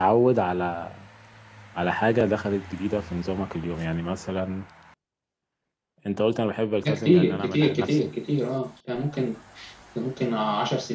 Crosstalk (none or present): present